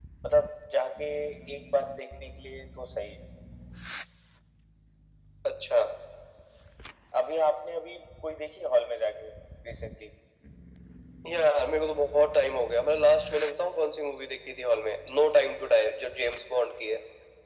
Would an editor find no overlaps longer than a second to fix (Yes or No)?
Yes